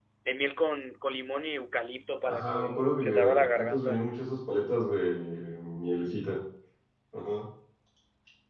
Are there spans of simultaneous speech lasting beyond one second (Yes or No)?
Yes